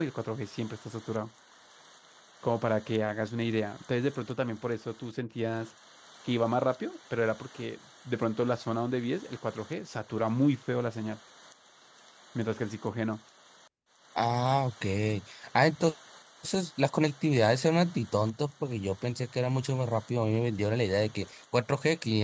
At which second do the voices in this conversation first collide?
none

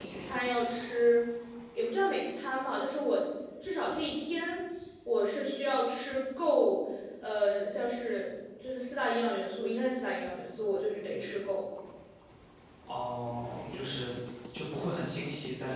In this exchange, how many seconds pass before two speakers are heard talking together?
none

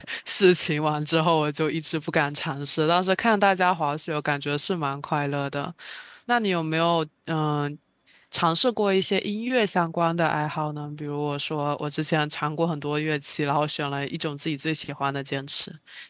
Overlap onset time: none

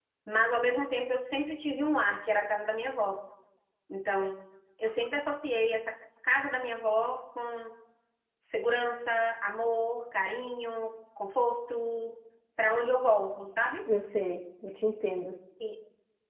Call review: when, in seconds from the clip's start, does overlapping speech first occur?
none

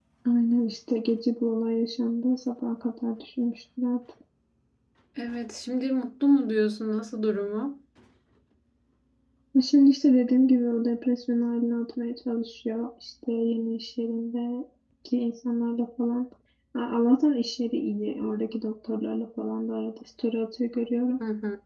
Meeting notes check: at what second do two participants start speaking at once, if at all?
none

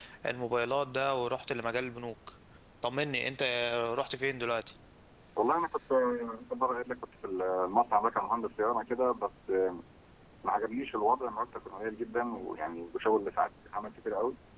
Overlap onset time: none

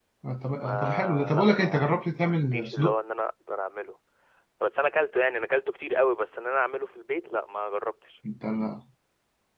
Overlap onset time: 0.6 s

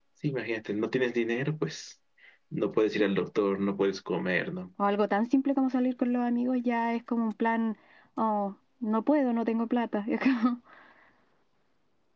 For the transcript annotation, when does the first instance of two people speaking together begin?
none

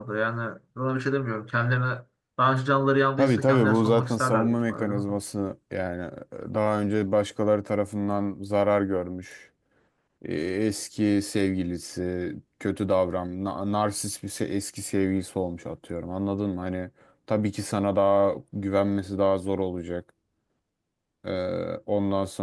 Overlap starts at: 3.2 s

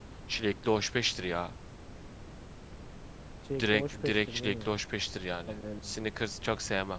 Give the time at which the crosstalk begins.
3.6 s

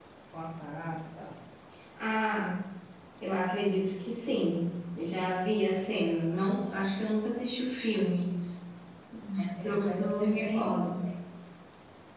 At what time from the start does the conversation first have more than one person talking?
9.6 s

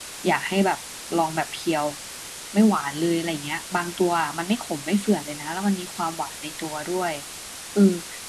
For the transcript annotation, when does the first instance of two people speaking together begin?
none

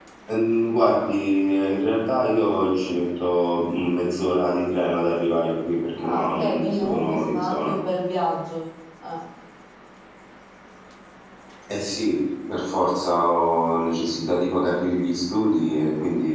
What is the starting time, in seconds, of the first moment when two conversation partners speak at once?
6.0 s

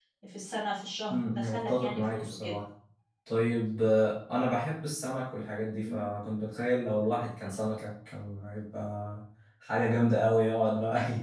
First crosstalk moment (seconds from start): 1.1 s

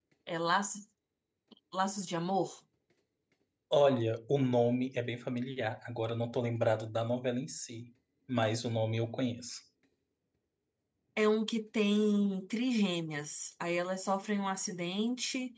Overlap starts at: none

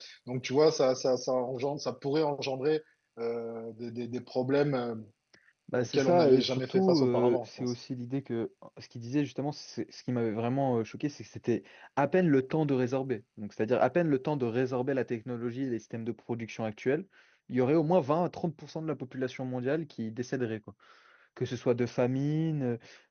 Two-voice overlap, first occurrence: 5.7 s

